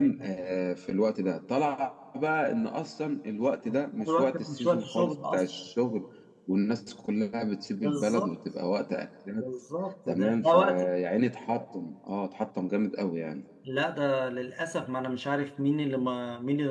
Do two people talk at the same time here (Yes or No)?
Yes